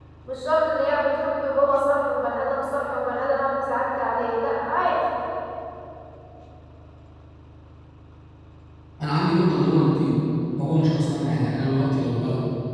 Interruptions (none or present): none